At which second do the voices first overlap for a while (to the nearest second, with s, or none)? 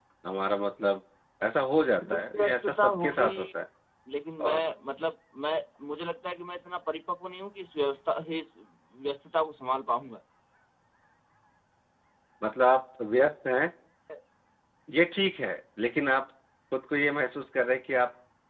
2 s